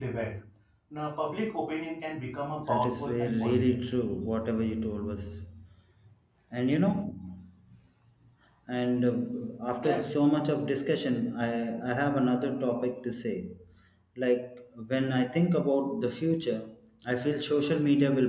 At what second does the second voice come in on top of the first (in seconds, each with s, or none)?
2.6 s